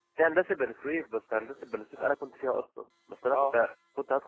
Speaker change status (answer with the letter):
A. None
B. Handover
A